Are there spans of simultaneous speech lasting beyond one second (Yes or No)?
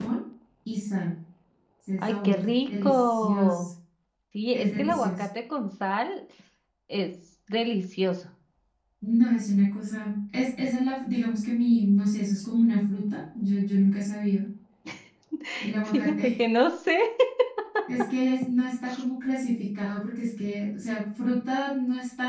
Yes